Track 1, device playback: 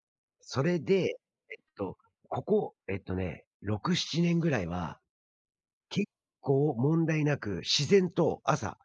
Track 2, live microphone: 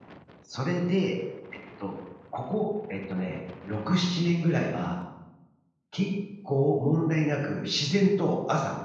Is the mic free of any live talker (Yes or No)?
Yes